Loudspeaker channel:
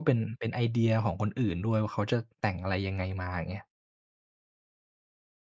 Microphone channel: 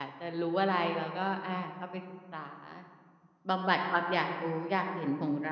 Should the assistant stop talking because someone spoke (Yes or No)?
Yes